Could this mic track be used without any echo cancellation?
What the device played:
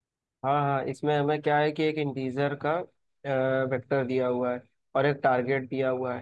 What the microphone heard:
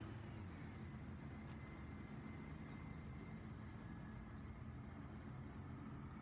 Yes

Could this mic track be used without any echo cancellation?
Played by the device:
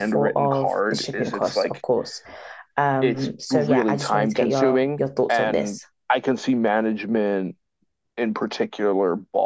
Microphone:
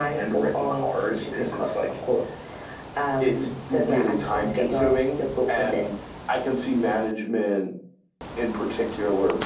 No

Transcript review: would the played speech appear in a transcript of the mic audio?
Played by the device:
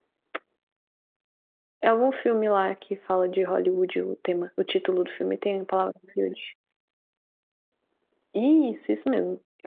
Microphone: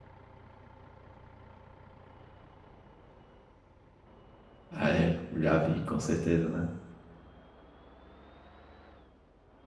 No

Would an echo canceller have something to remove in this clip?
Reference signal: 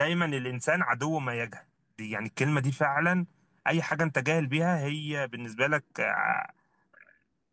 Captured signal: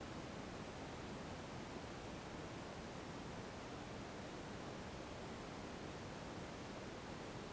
No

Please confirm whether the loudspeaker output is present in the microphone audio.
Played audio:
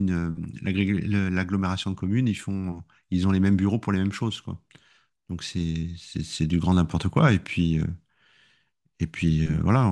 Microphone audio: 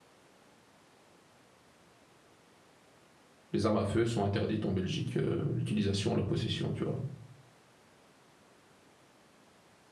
No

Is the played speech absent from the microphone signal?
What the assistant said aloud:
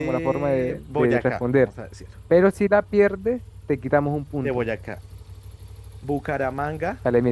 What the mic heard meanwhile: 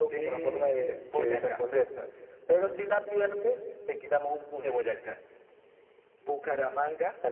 No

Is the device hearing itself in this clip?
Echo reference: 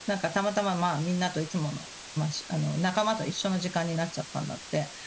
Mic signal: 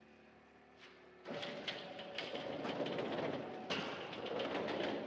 No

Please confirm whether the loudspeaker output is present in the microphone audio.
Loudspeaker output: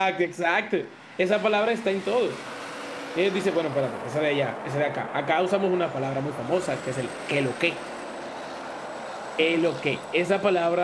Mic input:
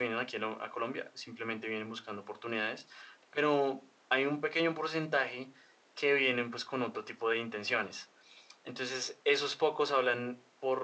No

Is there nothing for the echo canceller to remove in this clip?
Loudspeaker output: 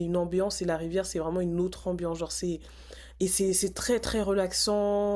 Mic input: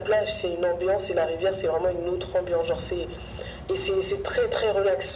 No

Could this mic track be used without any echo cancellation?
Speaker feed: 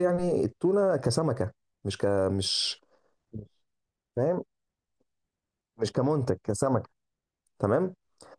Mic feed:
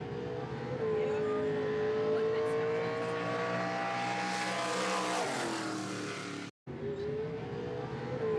Yes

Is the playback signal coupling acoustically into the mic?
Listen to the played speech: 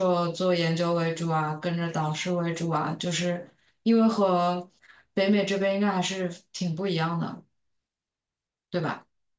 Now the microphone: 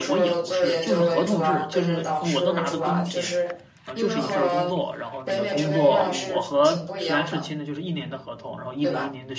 Yes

